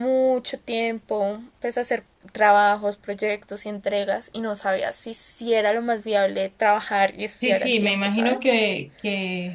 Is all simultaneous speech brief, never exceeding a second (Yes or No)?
No